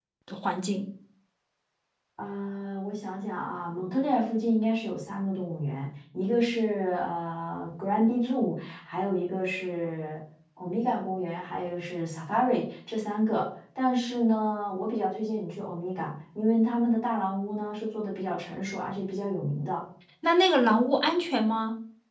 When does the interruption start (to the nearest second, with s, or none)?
none